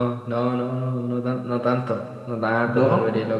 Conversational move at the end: listening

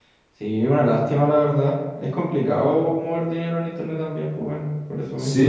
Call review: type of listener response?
taking over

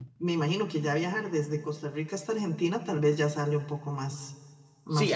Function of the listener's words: taking over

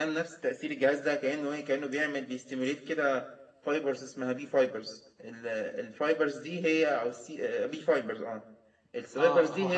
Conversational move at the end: taking over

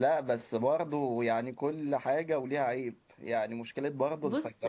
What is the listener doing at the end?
listening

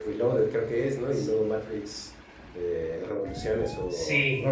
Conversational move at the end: taking over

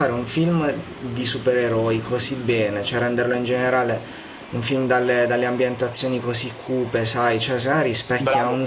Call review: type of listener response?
listening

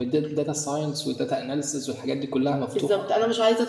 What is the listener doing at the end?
taking over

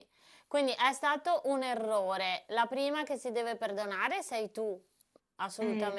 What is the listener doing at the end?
listening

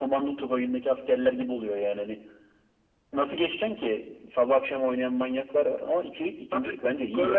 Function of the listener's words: taking over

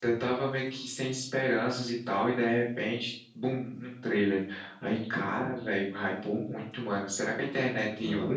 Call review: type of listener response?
listening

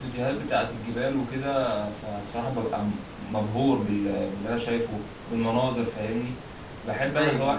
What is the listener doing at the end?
listening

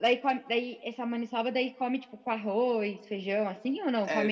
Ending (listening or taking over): taking over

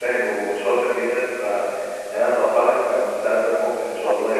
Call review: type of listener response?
taking over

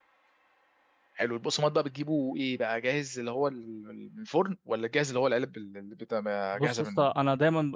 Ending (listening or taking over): taking over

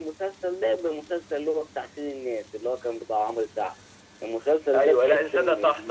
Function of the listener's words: taking over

